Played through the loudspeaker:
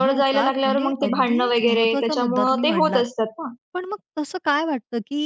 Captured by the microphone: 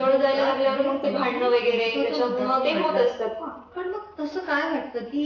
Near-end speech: none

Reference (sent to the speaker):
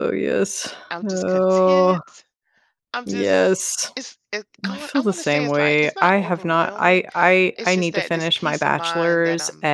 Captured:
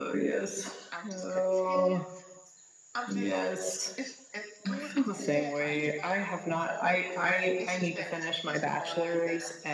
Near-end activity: none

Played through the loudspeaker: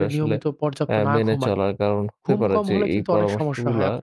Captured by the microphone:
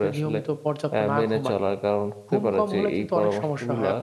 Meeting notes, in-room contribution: none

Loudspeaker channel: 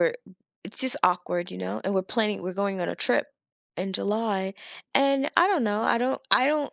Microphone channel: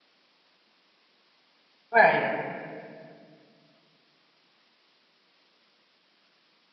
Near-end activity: present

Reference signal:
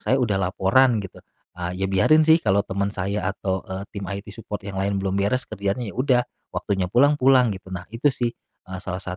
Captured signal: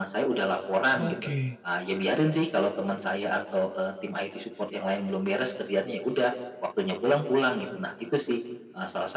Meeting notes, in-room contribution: present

